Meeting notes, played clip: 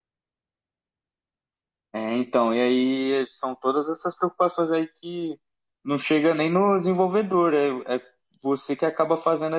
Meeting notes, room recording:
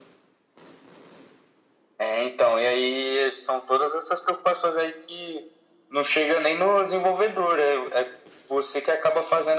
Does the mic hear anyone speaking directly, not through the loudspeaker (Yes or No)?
No